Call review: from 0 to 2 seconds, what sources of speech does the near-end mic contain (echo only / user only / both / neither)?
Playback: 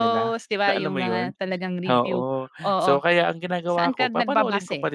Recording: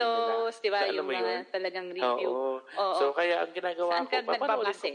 echo only